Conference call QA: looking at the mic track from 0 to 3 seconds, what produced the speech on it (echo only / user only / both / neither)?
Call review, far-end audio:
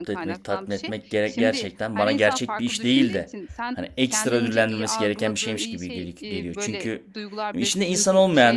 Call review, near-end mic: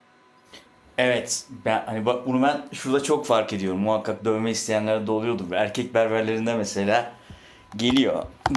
user only